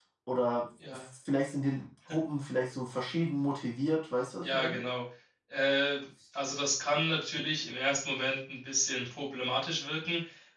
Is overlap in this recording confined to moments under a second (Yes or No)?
Yes